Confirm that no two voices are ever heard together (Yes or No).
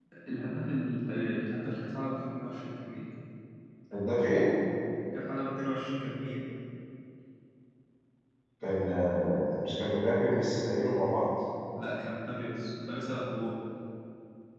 Yes